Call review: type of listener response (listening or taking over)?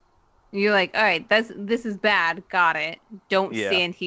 listening